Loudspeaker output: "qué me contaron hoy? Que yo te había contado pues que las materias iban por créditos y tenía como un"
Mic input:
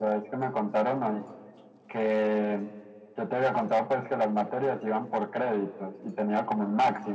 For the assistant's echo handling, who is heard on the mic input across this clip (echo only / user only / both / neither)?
echo only